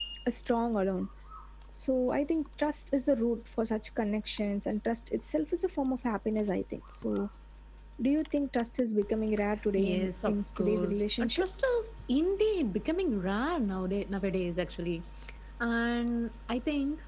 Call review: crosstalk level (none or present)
present